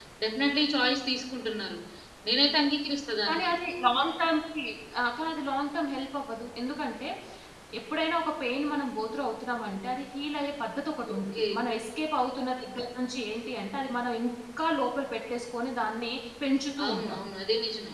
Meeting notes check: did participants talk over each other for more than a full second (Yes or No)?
No